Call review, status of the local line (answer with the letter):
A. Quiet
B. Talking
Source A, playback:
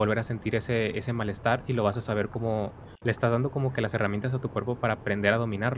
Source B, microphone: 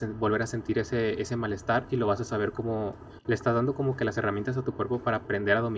A